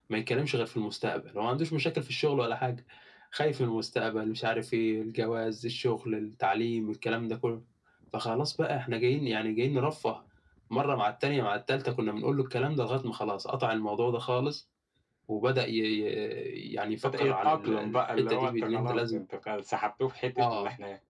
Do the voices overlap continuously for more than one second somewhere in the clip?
Yes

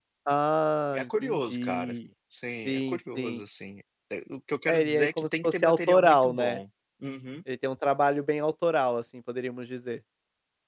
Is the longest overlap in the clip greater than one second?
Yes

